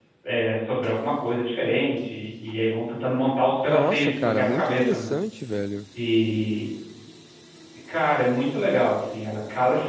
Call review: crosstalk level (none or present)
present